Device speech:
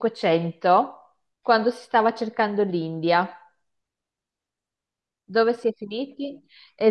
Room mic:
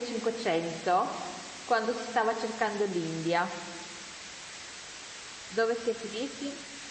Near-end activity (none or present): none